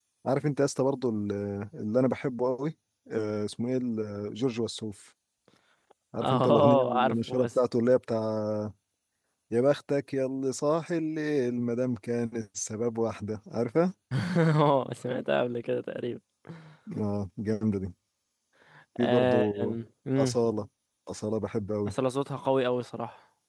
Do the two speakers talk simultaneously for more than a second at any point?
Yes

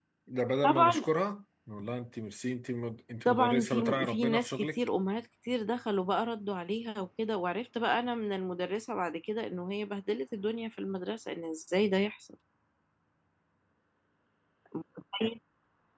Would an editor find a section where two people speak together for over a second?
Yes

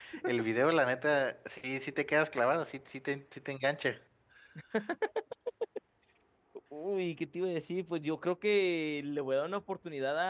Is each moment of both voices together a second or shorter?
Yes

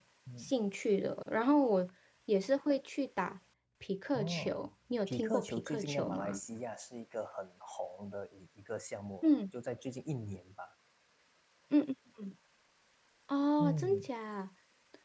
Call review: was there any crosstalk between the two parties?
Yes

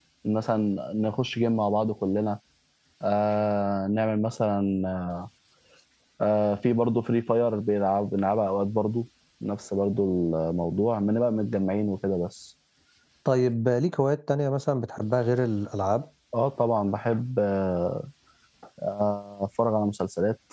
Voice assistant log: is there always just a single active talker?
Yes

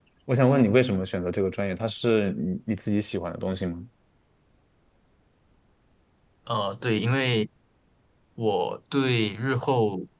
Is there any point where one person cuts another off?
No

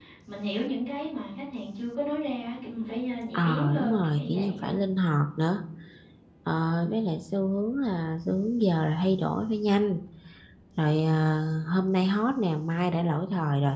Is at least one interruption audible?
Yes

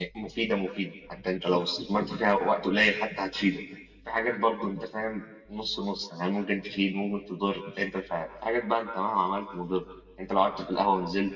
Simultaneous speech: No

